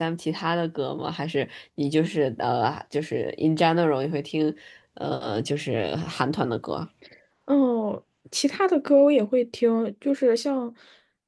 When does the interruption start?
none

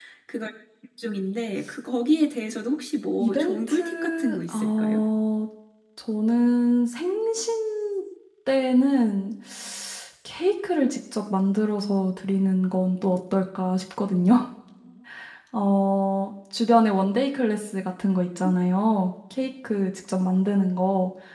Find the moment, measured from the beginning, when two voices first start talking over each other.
3.2 s

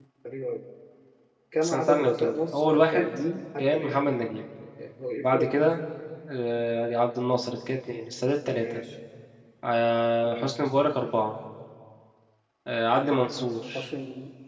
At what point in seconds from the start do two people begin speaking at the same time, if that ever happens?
1.6 s

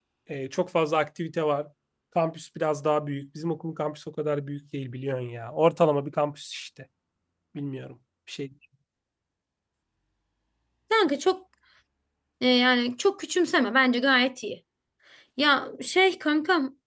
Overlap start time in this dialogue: none

